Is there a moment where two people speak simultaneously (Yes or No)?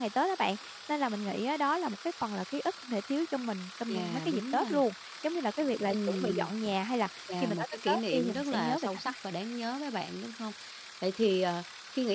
Yes